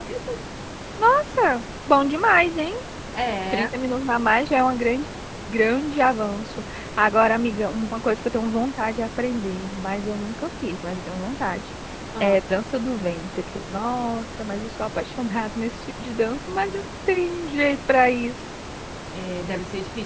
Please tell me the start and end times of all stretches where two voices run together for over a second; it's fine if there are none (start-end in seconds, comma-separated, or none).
none